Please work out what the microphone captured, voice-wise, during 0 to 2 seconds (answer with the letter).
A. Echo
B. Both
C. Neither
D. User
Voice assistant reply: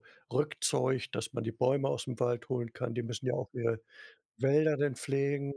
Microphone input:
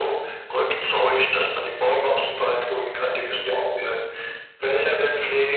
A